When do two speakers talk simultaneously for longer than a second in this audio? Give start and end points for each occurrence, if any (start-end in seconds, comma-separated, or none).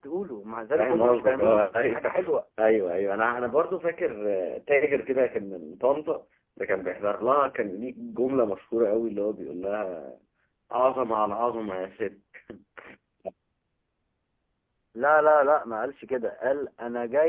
0.8-2.1